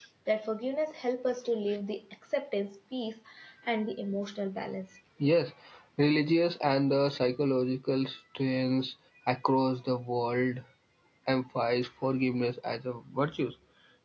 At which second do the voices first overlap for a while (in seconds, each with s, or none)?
none